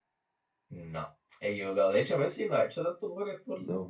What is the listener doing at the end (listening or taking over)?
listening